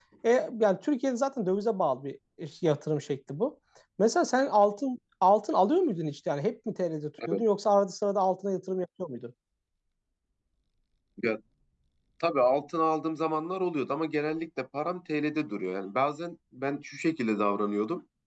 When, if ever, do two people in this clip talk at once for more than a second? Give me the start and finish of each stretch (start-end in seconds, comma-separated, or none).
none